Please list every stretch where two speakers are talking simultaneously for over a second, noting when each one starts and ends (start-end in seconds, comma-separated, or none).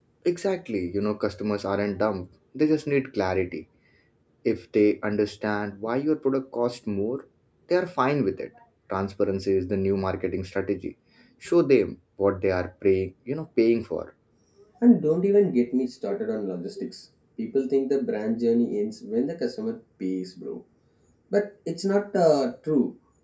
none